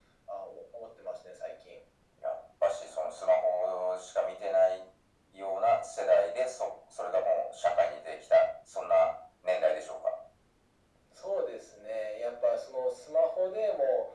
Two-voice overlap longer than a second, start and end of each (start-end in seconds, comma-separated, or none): none